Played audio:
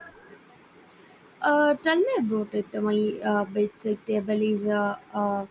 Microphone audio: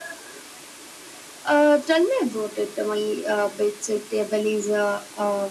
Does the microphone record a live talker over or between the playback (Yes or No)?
No